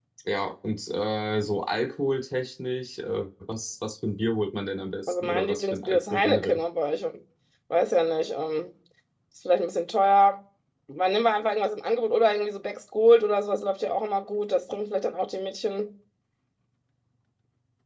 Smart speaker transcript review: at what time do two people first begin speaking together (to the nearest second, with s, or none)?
5 s